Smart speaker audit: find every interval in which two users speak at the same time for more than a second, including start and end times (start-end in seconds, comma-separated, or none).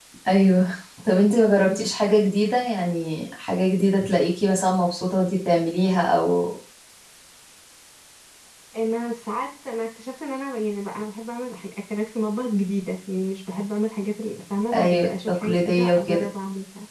14.7-16.3